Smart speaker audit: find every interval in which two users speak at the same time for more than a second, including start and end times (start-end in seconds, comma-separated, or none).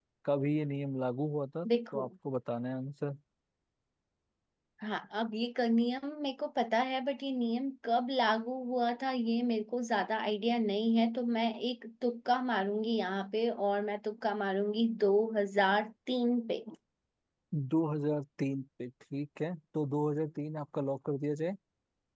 none